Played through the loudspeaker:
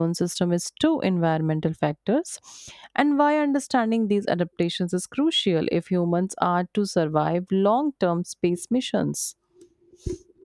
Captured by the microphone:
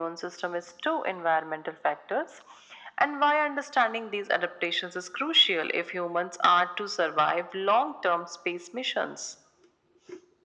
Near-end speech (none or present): none